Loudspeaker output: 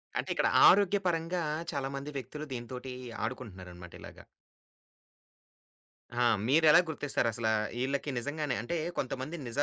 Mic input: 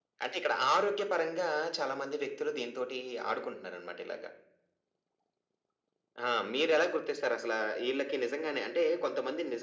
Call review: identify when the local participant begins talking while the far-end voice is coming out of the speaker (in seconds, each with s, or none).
none